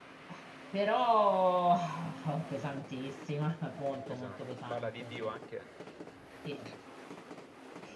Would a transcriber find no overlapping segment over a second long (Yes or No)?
No